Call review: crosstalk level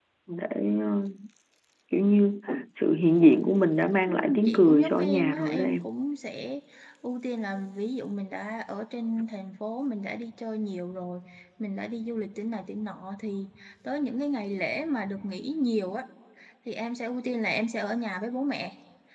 present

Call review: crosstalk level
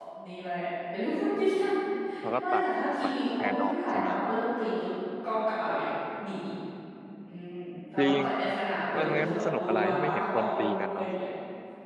present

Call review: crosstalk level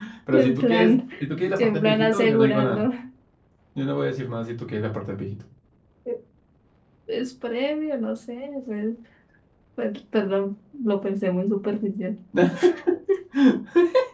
present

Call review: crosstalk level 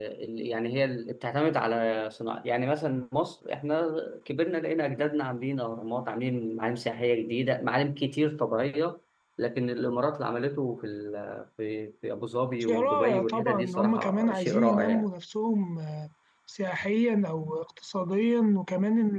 present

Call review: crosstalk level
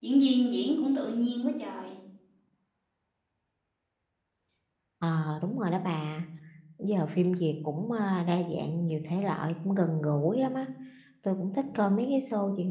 none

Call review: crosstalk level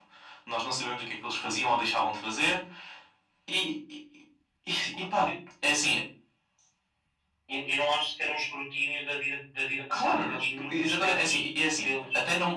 present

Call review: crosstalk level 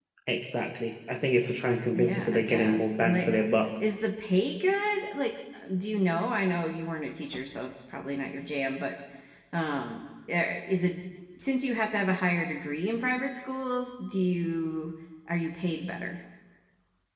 present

